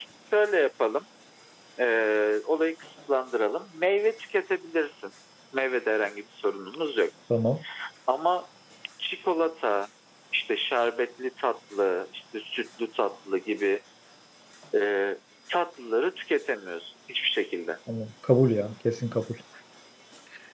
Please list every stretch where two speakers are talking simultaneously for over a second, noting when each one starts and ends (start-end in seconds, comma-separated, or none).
none